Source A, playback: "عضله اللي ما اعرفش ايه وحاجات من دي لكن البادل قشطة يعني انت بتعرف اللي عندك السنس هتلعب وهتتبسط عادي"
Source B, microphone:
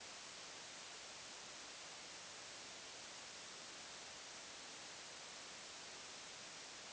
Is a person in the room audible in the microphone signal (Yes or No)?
No